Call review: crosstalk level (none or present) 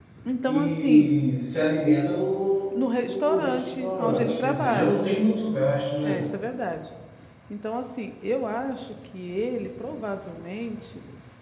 present